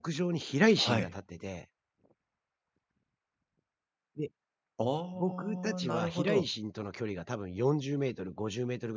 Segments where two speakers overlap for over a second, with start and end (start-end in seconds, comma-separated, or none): 5.2-6.5